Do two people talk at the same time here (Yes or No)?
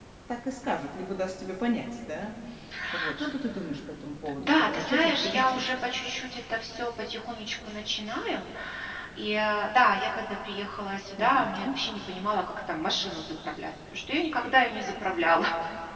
Yes